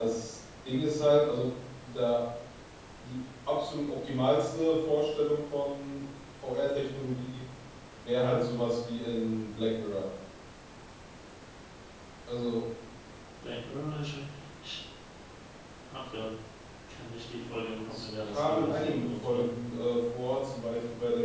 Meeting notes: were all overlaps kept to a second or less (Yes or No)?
No